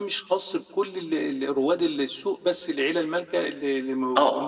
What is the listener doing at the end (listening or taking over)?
taking over